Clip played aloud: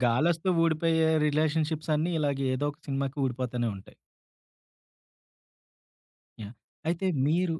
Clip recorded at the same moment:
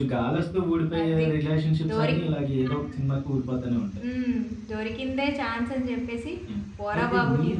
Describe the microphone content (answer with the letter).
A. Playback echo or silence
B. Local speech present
B